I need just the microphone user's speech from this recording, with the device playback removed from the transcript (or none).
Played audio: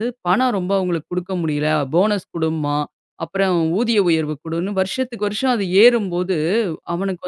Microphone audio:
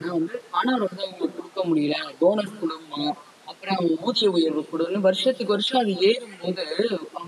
none